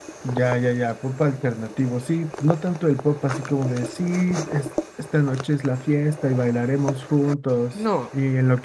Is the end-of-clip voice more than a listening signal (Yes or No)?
No